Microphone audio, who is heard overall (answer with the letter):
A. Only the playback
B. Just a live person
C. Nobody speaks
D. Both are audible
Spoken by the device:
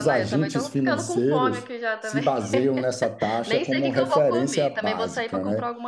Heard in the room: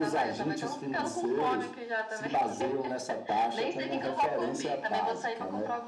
A